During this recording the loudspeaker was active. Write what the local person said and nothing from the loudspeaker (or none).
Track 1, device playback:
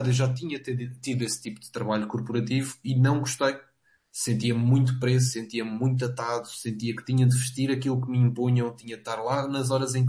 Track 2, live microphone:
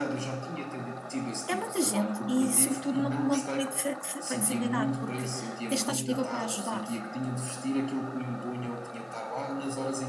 É muita gente e, sobretudo, não, não te permite flex- flexibilidade, porque tens de estar disponível para ajudar.